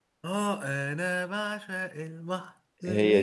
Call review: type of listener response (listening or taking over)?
listening